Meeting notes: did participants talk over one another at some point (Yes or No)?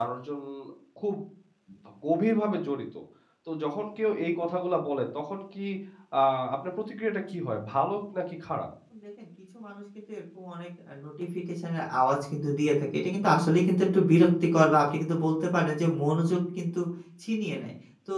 No